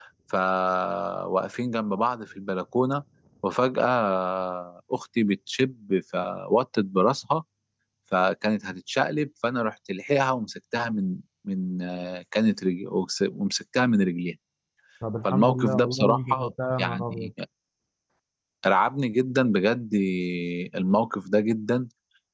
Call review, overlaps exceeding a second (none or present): present